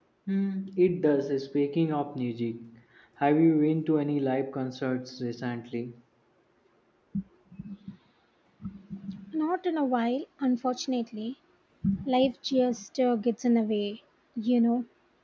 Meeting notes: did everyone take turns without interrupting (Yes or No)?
Yes